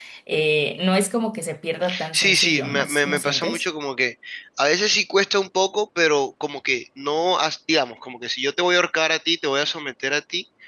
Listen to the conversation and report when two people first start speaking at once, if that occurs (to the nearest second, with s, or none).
2 s